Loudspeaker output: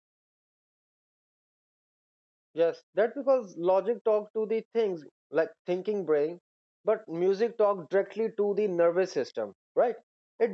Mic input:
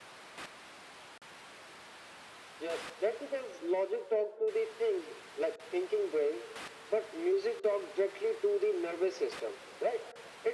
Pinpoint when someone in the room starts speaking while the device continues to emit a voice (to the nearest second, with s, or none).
none